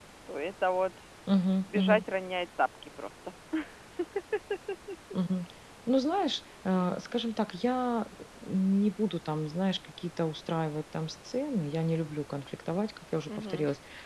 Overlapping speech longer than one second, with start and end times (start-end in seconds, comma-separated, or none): none